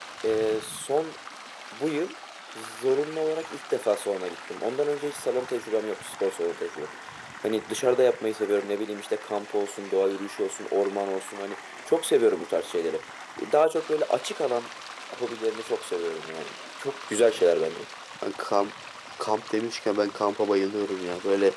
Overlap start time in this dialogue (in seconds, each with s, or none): none